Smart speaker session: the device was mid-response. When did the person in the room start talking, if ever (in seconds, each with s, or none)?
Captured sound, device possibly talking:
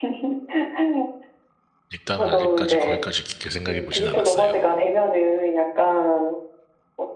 1.9 s